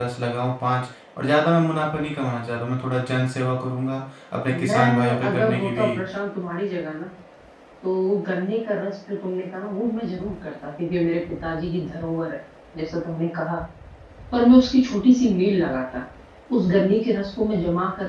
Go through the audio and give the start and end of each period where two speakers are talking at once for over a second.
4.5-5.9

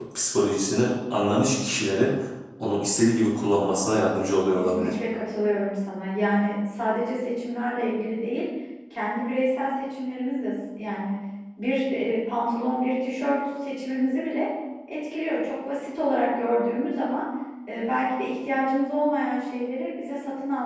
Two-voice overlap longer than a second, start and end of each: none

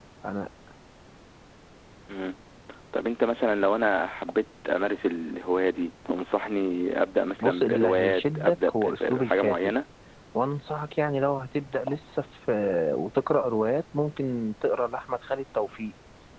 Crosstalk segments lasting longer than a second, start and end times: 7.4-9.6

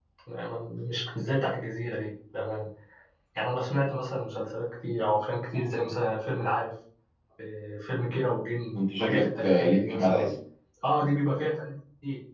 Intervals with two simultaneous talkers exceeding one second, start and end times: 9.0-10.3

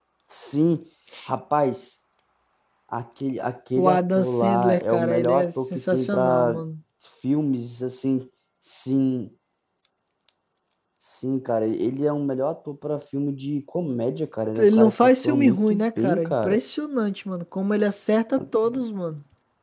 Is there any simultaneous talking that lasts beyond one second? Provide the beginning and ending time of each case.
3.8-6.6, 14.6-16.6

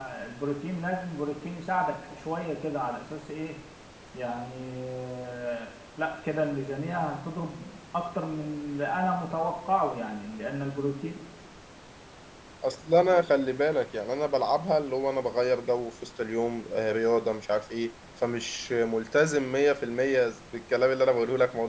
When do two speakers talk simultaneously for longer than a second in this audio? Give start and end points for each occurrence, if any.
none

